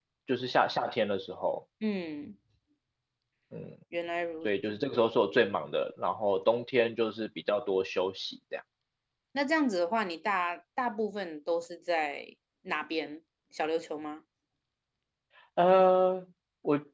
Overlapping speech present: No

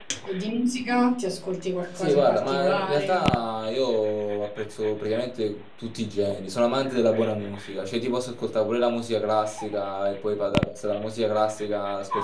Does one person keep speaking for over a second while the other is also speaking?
Yes, from 2.0 s

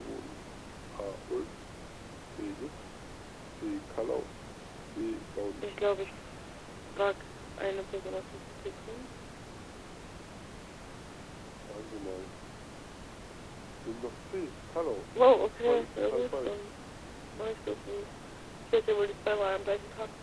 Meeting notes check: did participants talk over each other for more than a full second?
Yes, from 15.2 s

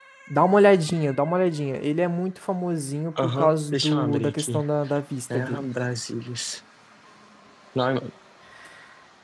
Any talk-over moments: Yes, from 3.2 s

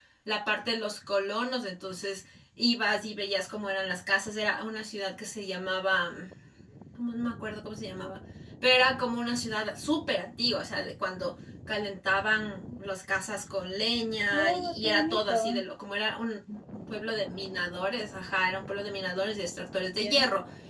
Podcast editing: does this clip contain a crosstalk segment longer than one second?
Yes, from 14.3 s

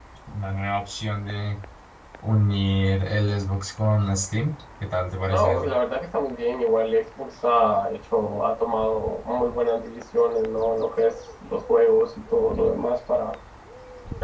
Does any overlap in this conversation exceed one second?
No

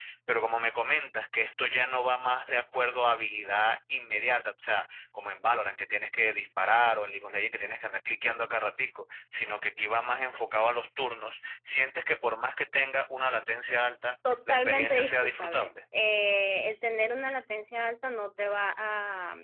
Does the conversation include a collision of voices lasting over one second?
Yes, from 14.5 s

